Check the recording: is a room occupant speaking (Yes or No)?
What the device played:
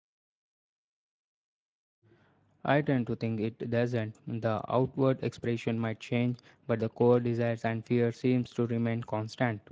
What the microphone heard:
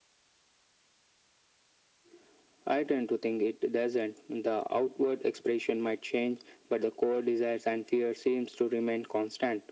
No